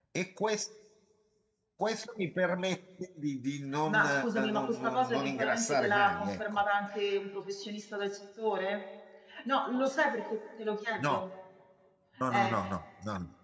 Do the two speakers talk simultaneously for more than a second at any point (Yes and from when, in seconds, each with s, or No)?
Yes, from 3.9 s